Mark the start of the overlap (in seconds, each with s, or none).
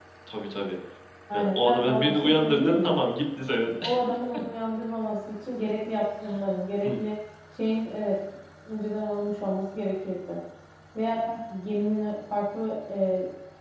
1.3 s